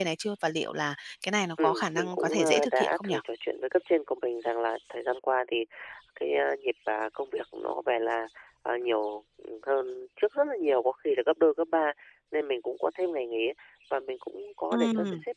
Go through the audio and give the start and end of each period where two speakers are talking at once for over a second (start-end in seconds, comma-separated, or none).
1.6-3.1